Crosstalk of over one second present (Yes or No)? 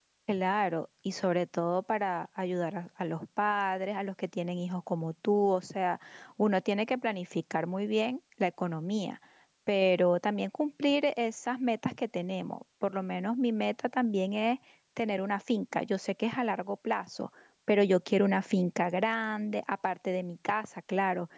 No